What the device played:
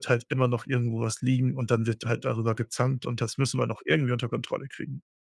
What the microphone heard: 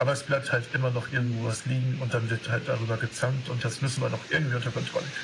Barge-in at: 1.1 s

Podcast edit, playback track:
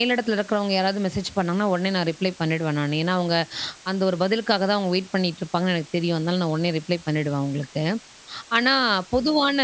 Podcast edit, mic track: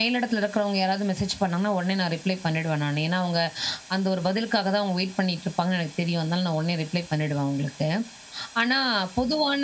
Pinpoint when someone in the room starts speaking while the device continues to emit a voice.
none

